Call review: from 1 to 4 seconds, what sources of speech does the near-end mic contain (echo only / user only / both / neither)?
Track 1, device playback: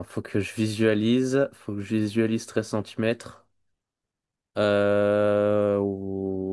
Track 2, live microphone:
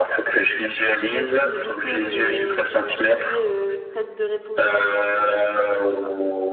both